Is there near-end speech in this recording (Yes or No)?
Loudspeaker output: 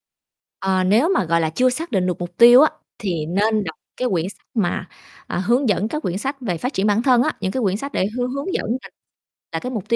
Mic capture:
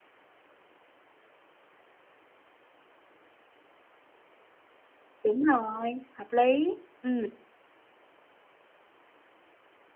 Yes